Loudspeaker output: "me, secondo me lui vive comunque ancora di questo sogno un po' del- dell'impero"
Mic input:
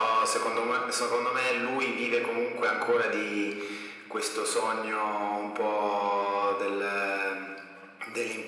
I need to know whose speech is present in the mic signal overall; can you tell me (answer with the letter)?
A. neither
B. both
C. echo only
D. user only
C